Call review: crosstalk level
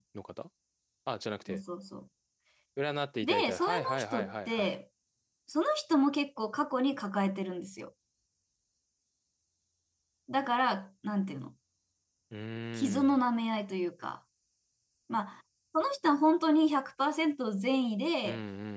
present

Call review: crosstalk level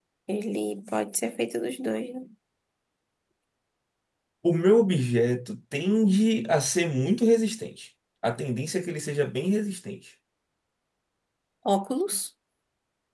none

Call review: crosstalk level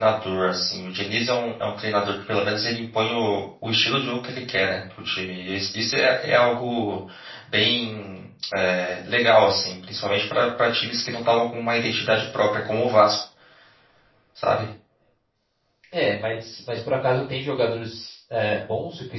none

